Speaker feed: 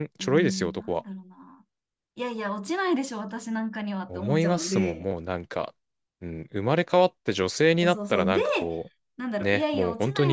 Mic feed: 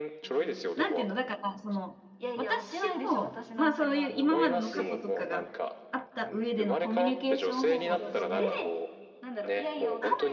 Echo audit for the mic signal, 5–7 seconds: both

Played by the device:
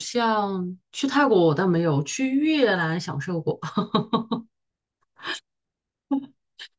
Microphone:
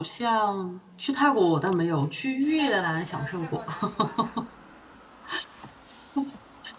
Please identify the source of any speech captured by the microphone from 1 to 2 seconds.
echo only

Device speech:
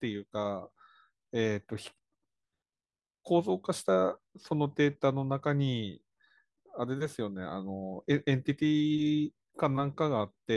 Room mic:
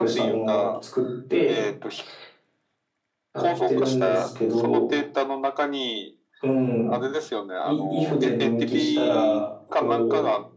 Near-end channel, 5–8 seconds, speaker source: both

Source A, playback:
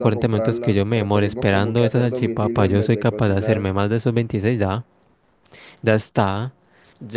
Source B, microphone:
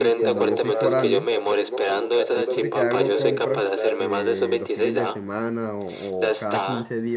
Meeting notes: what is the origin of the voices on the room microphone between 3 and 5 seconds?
both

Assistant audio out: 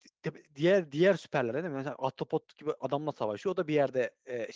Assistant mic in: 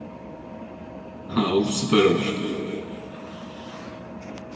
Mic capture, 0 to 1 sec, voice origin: neither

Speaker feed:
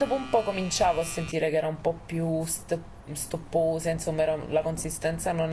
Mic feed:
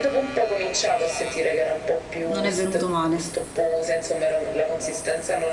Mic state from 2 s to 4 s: both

